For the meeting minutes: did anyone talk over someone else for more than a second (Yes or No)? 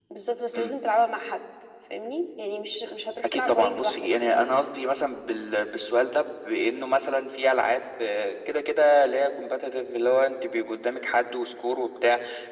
Yes